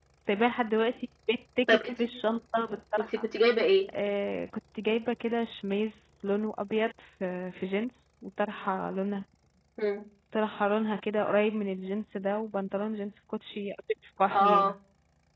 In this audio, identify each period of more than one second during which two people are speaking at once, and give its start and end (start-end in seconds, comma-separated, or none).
none